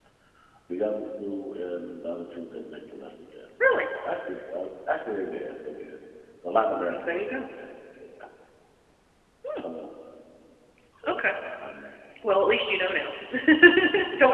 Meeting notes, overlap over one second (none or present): none